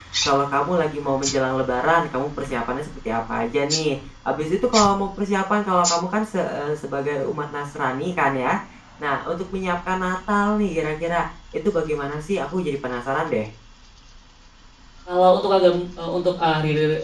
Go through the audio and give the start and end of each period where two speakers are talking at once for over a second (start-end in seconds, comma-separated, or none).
none